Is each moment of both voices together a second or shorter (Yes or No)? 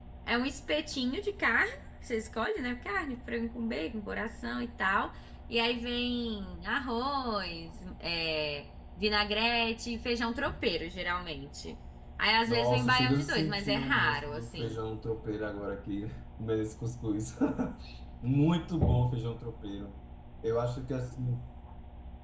No